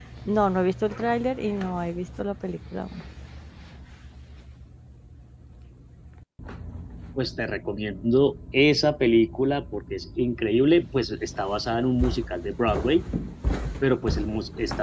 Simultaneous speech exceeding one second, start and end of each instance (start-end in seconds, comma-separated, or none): none